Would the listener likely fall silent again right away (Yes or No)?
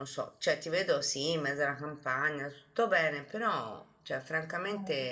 Yes